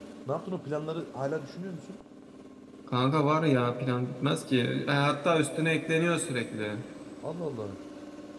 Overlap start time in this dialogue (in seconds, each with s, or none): none